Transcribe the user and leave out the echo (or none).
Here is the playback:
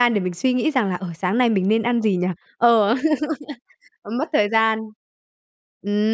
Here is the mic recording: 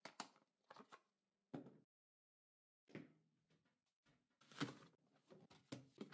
none